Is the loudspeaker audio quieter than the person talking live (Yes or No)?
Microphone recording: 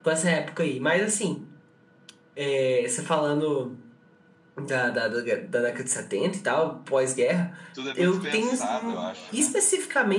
No